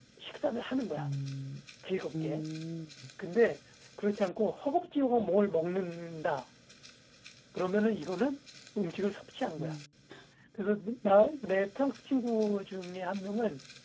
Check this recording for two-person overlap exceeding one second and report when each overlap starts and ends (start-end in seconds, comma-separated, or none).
none